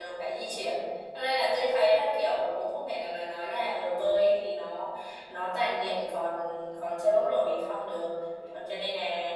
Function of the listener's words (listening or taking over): listening